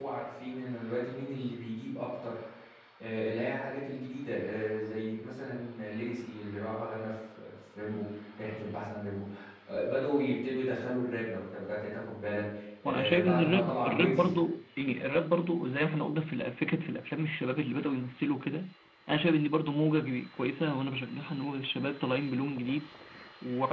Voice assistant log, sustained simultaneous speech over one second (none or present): present